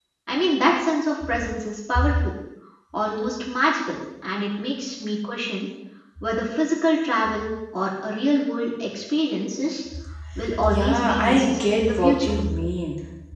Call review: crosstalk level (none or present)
present